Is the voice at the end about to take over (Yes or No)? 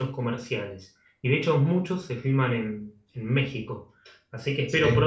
No